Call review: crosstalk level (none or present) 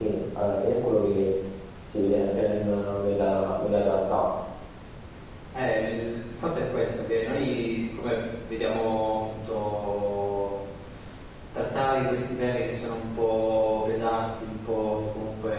none